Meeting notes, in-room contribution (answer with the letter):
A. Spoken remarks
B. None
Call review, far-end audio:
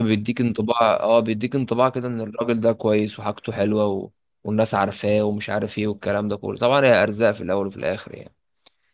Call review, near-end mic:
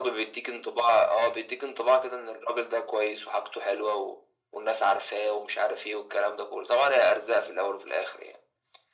B